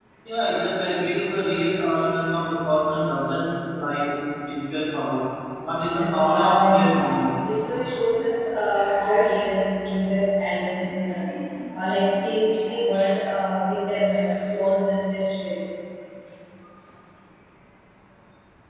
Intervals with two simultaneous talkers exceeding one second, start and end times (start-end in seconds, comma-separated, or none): 5.9-7.3